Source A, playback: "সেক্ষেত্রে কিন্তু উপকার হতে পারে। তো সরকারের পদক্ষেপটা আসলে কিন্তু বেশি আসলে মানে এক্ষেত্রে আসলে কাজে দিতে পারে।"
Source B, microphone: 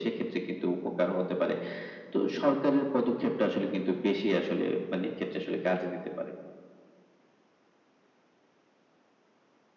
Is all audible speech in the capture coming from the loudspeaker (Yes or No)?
Yes